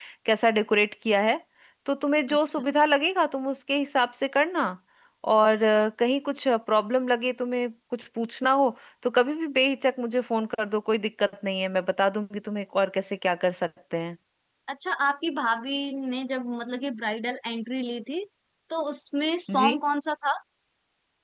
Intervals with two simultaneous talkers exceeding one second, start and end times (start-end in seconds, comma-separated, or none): none